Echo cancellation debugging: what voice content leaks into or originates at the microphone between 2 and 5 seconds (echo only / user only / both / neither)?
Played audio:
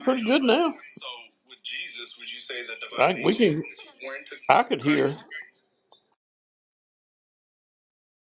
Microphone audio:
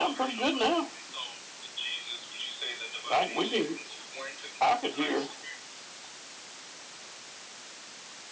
echo only